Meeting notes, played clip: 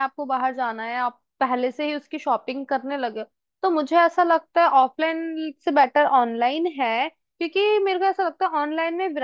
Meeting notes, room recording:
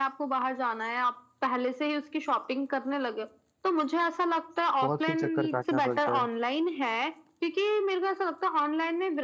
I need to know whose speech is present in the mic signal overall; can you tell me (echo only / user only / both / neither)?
both